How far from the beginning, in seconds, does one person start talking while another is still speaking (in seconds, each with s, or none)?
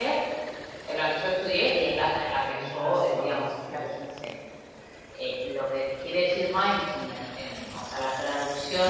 2.4 s